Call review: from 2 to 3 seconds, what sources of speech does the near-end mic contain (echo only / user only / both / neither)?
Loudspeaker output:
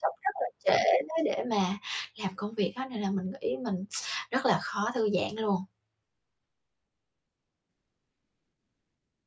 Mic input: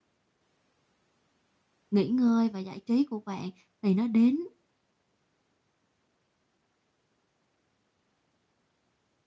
user only